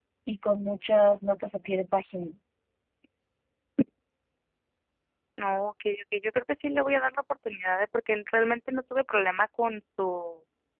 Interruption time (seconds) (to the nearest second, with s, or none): none